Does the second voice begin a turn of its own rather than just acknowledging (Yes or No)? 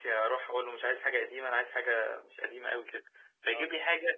No